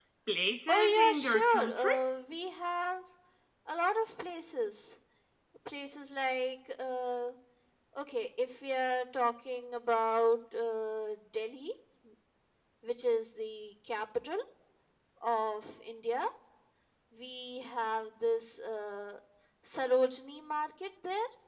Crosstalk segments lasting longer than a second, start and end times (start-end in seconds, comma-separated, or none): 0.7-1.9